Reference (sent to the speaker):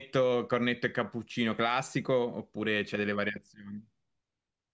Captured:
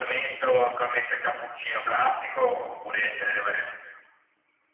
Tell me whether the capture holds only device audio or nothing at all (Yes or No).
Yes